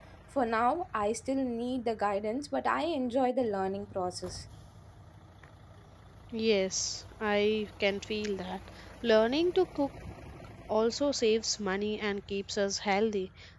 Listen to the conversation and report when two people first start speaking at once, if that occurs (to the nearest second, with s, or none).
none